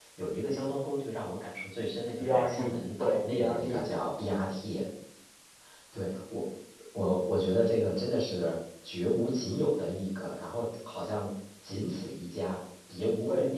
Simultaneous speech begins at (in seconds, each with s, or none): 2.2 s